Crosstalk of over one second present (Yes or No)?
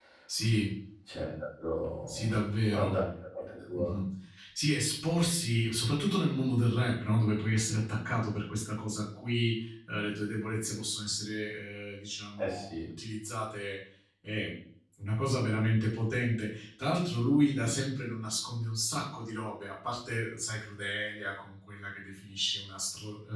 No